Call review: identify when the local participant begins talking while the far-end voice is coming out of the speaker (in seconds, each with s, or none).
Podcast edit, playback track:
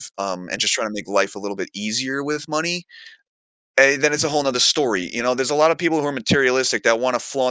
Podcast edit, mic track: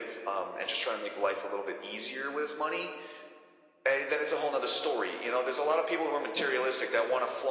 none